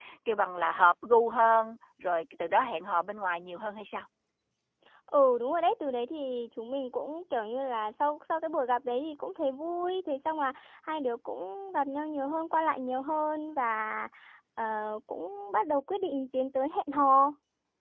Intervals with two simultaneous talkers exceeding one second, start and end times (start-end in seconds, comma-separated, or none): none